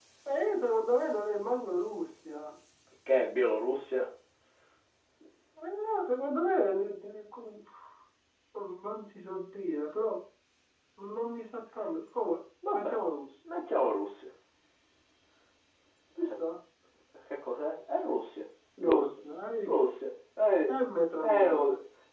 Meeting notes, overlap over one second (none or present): none